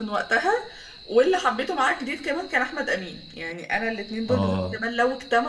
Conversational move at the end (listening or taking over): listening